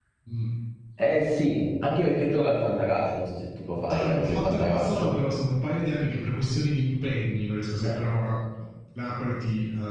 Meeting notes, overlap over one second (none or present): present